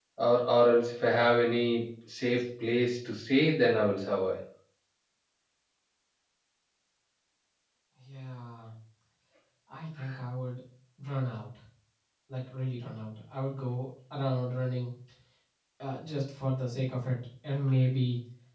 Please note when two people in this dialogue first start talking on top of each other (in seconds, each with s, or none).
none